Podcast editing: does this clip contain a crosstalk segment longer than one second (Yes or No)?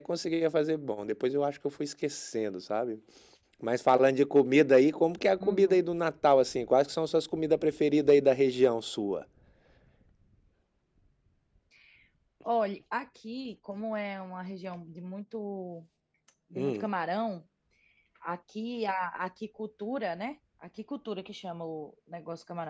No